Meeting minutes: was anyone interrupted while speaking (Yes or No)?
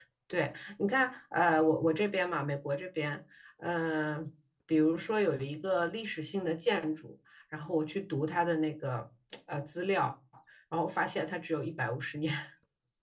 No